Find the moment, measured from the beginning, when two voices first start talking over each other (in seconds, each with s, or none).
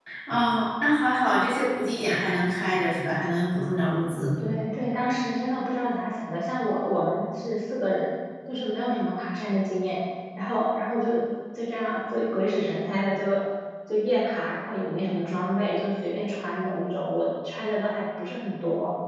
none